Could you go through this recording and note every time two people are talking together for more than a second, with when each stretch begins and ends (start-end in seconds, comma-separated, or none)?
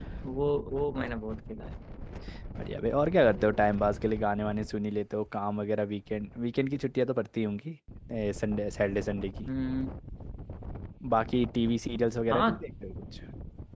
none